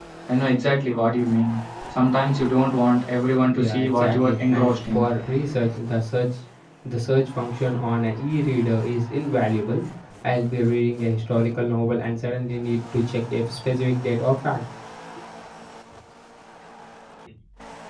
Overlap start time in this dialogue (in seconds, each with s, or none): 3.5 s